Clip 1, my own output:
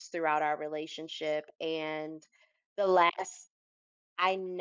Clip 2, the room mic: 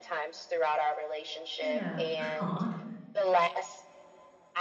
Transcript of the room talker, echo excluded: Yeah. Aw.

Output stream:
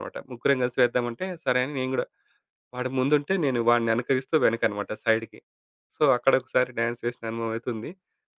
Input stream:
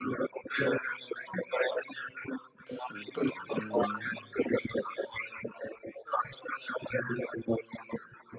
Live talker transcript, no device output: సూపర్. హ్మ్.

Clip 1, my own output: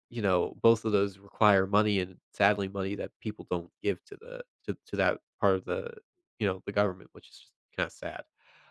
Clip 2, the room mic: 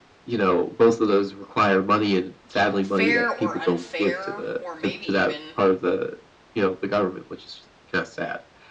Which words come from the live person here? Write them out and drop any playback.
you know, fair or unfair, or maybe even,

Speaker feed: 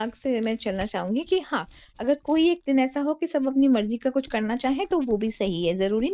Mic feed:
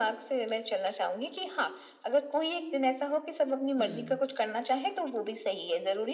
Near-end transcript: हुँ।

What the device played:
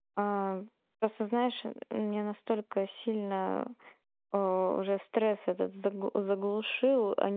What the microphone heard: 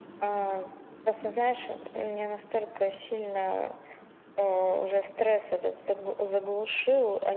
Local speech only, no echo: none

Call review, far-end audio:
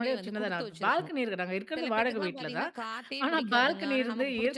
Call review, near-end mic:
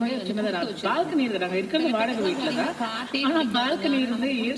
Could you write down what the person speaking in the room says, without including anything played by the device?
none

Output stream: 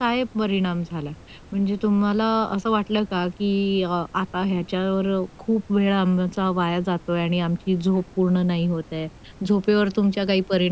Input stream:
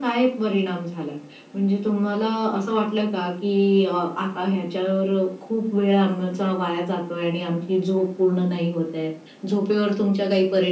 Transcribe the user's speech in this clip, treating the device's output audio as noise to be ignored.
none

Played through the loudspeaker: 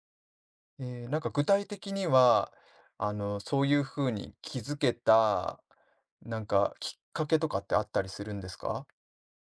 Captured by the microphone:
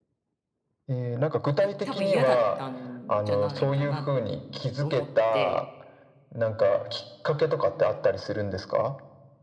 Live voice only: い多分嫌だったんじゃないかなと思って、

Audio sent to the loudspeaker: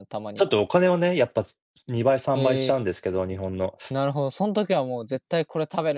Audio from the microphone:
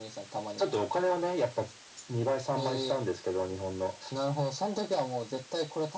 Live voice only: none

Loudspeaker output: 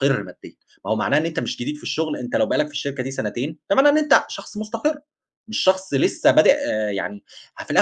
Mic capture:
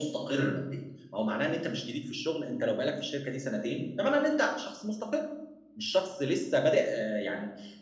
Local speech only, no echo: none

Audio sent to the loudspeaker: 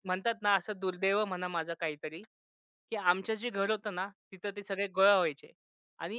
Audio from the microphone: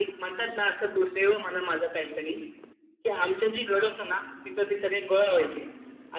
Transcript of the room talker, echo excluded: none

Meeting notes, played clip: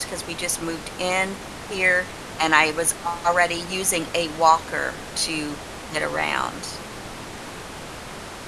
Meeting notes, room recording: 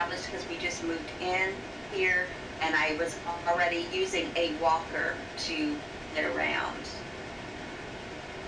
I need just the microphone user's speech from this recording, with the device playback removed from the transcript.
none

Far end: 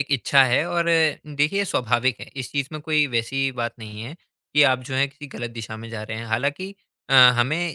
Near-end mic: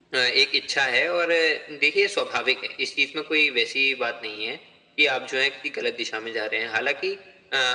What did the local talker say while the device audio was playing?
none

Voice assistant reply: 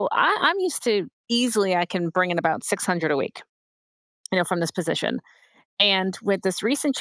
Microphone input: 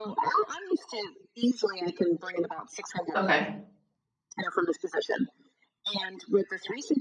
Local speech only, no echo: Okay.

